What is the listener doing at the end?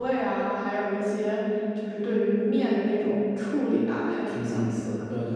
taking over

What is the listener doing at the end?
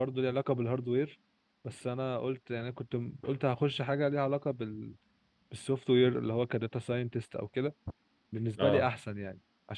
listening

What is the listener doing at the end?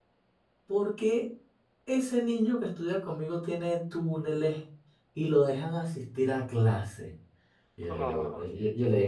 listening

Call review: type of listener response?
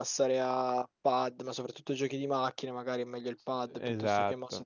listening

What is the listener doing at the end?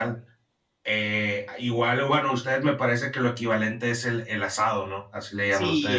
taking over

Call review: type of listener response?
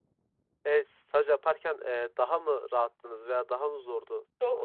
taking over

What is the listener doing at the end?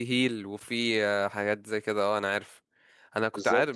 listening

